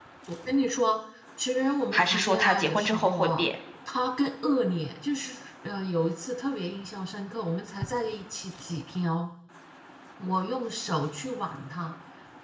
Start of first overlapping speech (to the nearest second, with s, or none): 2 s